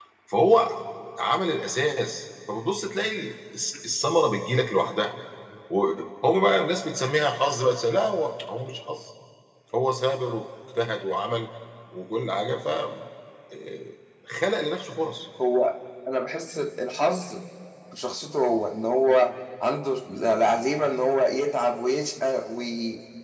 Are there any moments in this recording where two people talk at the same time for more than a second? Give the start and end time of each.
none

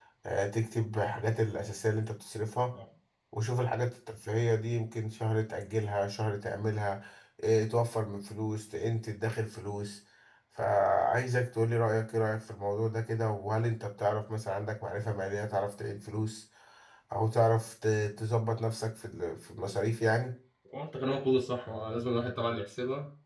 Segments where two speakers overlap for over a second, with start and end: none

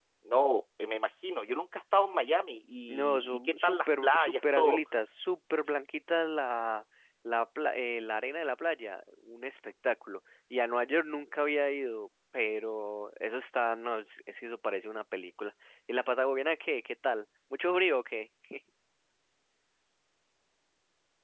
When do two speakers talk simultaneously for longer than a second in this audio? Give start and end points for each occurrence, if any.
2.9-4.8

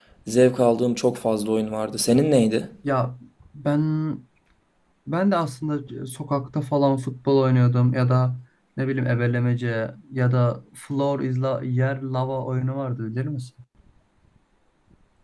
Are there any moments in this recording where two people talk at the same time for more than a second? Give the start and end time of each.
none

